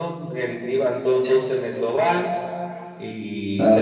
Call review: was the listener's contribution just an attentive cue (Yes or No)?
Yes